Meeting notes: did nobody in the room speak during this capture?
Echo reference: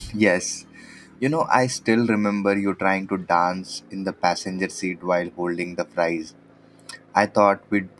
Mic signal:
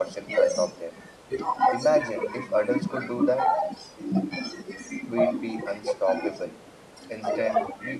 No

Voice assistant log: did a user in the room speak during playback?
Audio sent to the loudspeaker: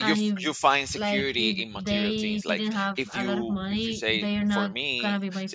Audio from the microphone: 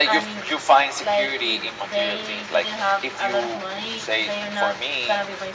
No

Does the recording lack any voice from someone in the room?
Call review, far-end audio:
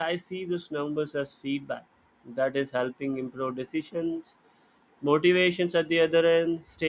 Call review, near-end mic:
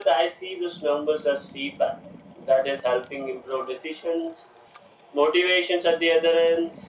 Yes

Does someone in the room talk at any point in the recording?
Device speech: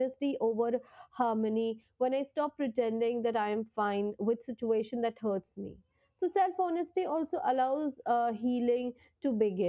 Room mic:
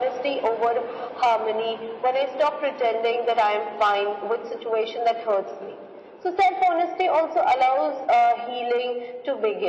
No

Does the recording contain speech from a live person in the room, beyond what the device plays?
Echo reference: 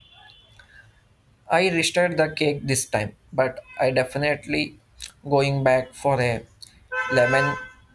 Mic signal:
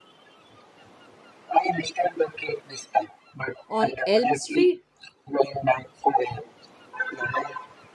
Yes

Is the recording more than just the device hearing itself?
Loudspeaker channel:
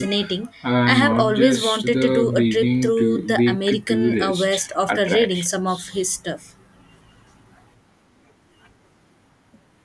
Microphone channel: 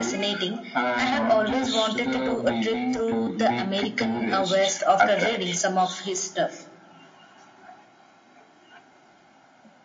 No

